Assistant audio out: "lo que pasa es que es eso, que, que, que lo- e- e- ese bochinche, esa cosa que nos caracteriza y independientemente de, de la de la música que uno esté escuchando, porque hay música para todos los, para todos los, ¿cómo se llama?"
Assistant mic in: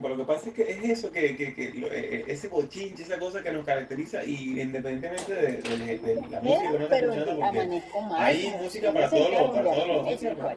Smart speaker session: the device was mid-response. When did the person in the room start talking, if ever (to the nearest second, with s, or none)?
6 s